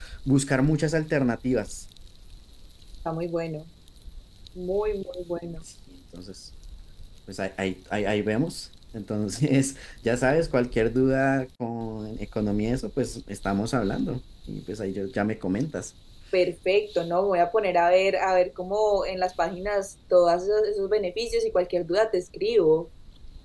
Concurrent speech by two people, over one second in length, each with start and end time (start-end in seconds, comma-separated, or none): none